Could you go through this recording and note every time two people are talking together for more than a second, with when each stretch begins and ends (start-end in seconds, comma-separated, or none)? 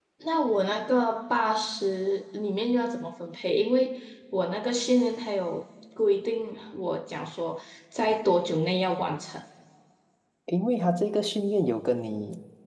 none